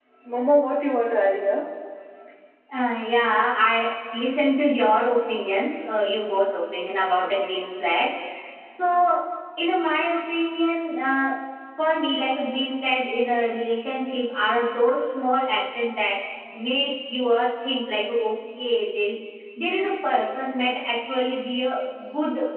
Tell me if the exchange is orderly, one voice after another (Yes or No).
Yes